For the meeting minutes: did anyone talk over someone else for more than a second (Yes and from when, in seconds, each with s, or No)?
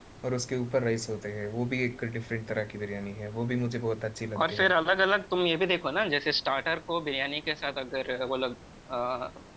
No